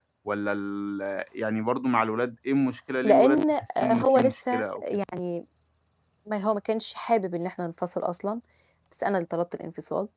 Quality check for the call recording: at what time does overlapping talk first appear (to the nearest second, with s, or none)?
3 s